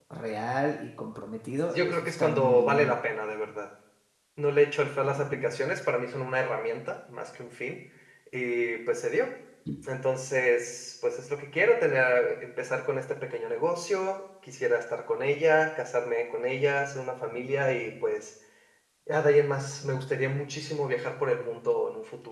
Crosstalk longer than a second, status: present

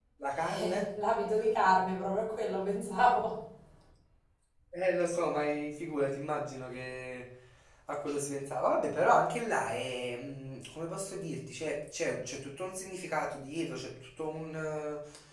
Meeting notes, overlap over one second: none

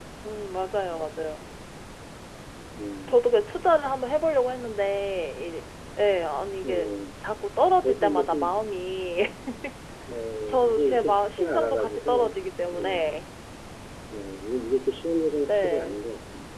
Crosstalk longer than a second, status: present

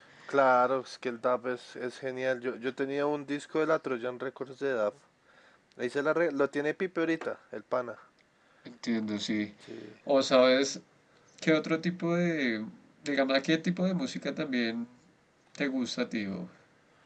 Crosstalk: none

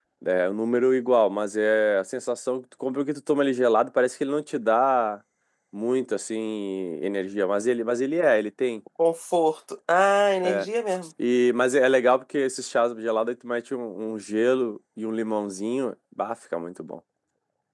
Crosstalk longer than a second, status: none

